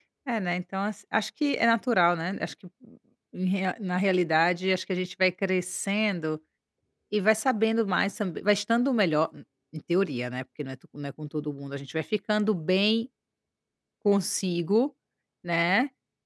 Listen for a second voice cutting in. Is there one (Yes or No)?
No